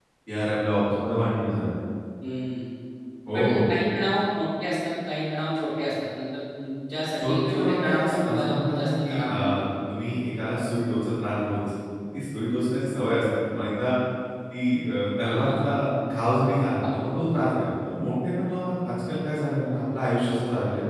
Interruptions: present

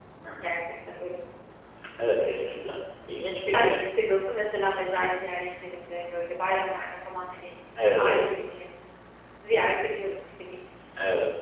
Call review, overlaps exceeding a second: none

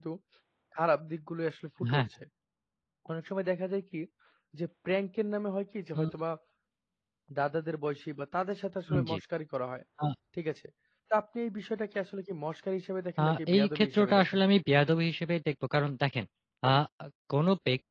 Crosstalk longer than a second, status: present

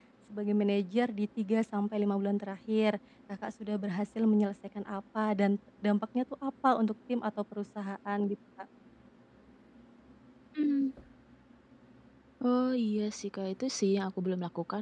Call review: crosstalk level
none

